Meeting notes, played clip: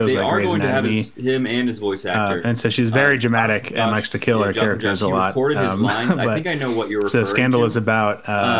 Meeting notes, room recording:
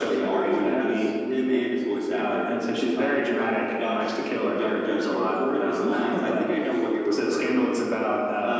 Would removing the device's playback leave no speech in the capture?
Yes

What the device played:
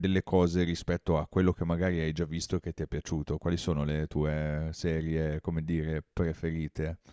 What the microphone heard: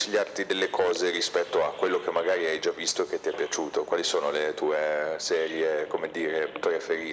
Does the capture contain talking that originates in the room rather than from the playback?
No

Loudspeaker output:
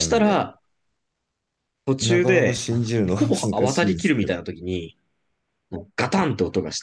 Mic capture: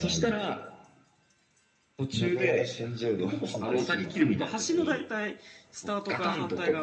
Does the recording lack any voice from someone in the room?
No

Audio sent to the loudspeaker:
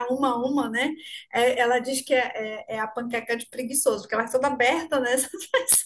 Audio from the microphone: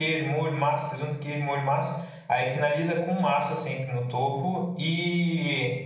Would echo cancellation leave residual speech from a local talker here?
Yes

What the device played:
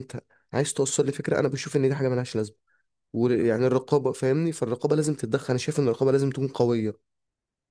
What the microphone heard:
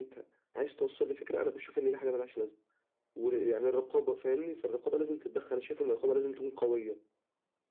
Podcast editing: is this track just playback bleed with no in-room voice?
Yes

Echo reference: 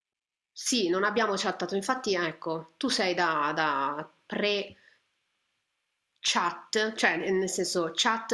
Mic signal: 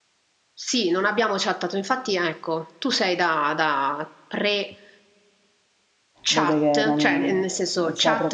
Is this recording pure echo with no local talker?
No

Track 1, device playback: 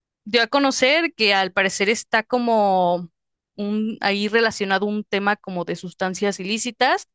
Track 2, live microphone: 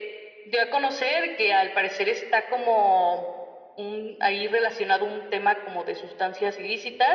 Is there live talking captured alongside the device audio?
No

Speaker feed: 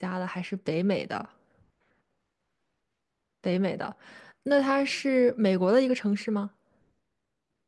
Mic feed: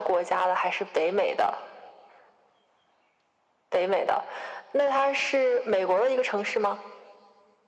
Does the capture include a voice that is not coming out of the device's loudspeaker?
No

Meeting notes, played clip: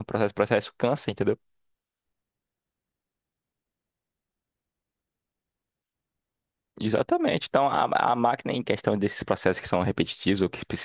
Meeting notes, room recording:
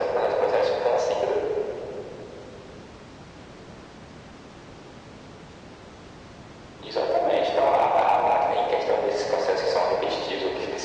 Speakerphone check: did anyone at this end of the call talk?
No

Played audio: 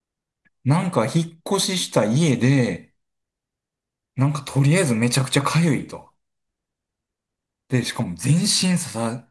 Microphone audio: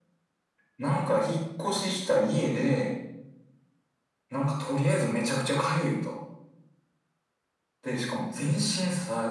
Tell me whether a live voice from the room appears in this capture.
No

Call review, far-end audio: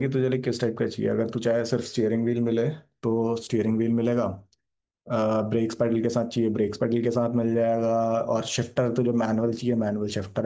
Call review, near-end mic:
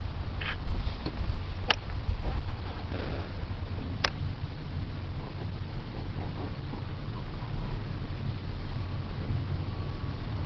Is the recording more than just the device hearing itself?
No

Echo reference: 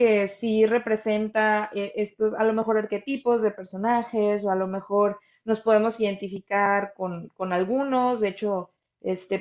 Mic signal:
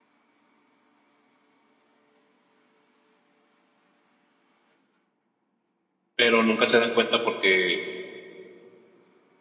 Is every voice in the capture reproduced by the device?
No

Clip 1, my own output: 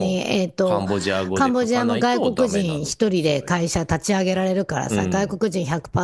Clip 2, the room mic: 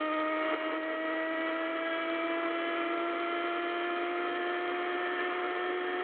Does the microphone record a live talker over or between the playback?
No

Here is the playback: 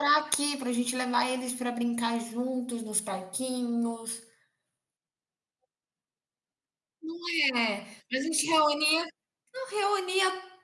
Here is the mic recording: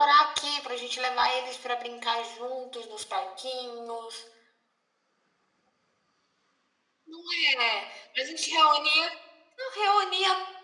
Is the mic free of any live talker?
Yes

